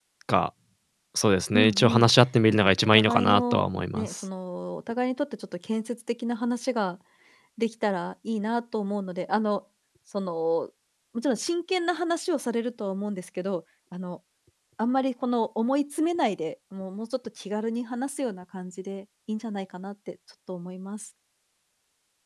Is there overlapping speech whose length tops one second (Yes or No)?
Yes